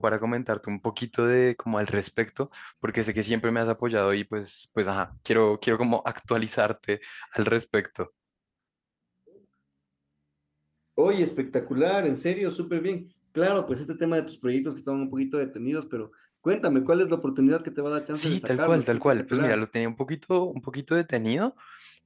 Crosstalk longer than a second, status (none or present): present